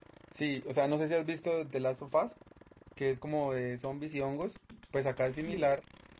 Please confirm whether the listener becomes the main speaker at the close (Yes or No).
No